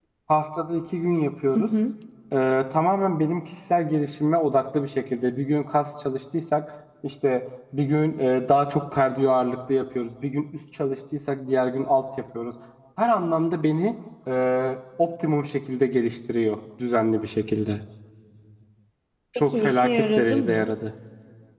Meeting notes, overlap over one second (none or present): present